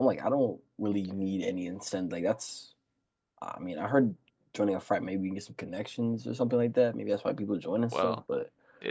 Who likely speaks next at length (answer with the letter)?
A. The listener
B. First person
A